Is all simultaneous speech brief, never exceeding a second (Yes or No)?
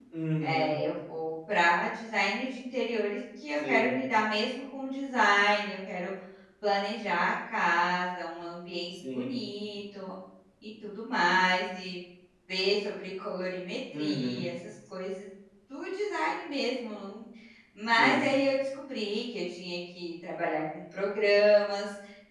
Yes